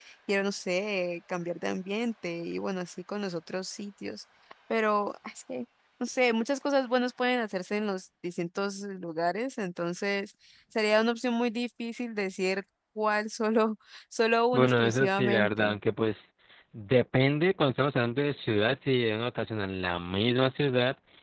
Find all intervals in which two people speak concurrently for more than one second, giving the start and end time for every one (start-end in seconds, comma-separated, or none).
14.5-15.8